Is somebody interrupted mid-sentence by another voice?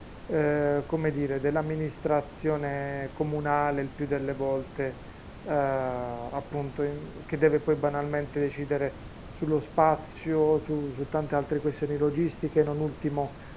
No

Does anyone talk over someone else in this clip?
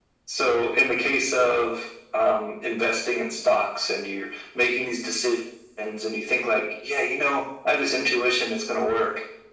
No

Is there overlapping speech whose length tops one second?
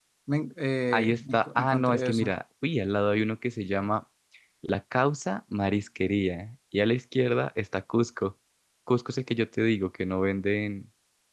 Yes, from 0.9 s

